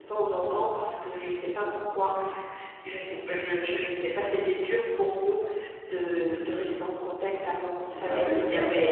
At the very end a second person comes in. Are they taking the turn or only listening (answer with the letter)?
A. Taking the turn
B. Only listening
A